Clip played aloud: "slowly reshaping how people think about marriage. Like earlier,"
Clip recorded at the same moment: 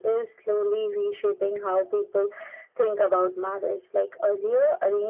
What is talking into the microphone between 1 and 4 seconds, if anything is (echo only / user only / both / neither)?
echo only